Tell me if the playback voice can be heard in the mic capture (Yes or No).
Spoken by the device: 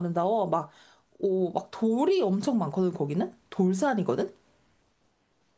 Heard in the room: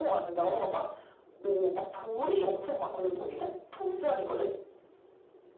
Yes